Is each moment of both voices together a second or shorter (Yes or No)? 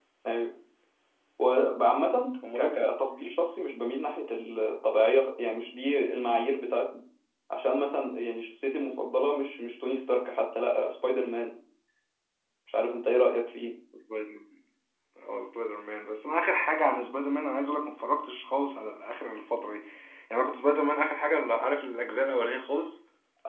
Yes